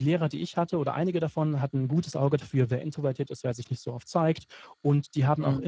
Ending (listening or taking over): listening